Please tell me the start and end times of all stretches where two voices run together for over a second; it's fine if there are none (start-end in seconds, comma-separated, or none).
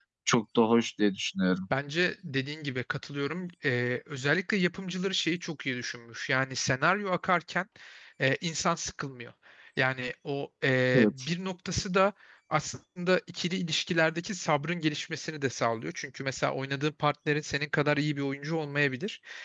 none